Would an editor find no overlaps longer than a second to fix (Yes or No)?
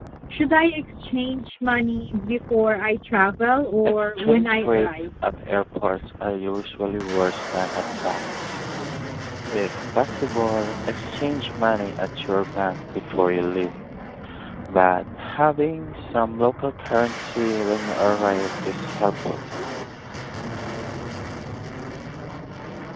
No